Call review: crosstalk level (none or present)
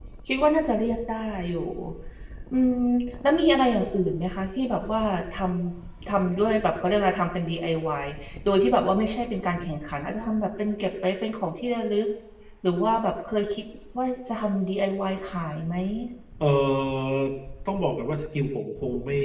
none